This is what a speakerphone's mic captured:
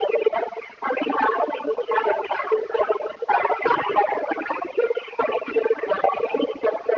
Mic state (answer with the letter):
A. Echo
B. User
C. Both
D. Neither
A